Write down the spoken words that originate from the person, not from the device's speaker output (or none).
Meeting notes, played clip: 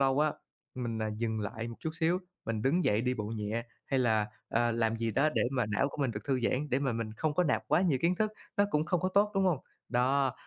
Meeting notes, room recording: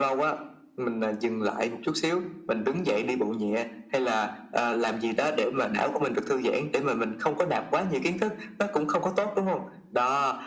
none